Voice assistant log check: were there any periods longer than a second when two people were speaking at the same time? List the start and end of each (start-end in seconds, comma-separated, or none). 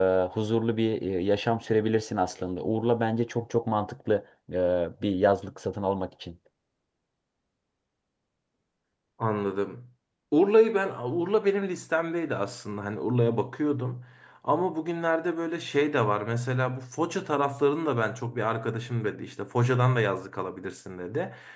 none